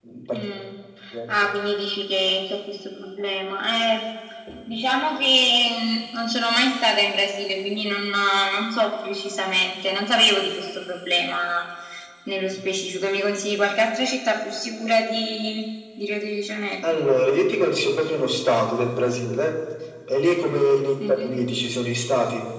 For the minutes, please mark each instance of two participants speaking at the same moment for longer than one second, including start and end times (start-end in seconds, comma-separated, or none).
none